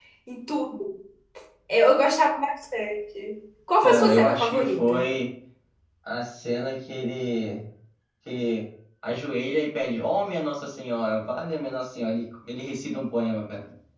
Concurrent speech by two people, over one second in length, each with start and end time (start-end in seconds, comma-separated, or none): 3.8-5.0